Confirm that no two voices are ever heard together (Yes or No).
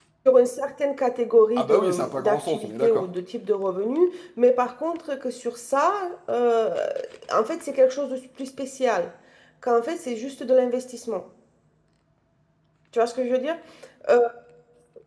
No